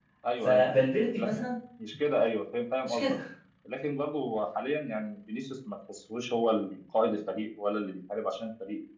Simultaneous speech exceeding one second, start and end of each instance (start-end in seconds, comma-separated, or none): none